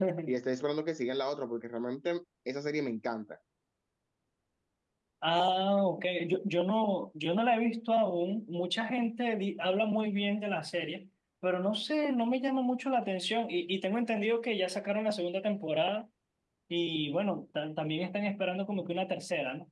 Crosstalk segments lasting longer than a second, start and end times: none

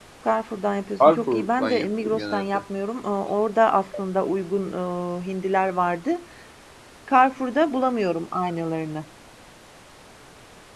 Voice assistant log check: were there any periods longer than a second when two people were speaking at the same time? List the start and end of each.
1.0-2.5

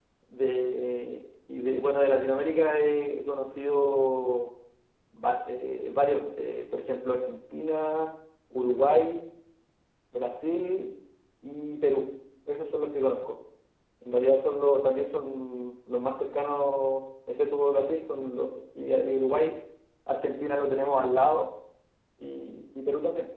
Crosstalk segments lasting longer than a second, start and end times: none

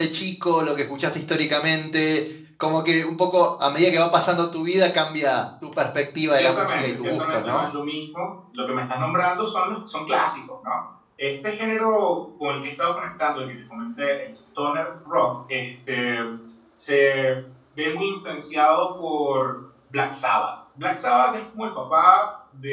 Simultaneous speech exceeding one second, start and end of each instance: 6.3-7.6

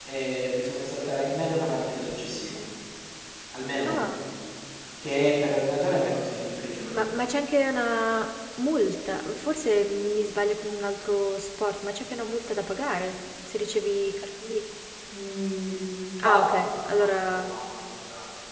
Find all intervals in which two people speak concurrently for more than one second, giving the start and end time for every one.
16.2-17.5

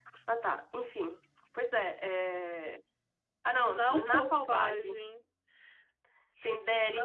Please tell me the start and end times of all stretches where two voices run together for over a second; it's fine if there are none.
3.7-5.0

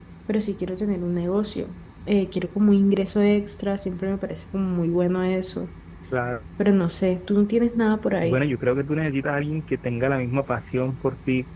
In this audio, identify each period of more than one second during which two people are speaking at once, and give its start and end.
none

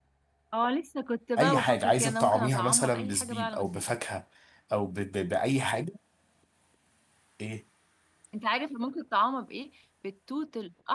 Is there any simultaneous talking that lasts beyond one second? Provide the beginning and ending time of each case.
1.4-3.8

